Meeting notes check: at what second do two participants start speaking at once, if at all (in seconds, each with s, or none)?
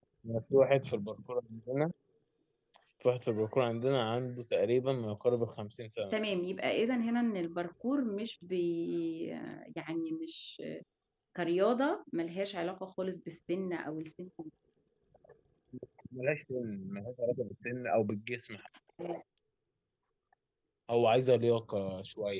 none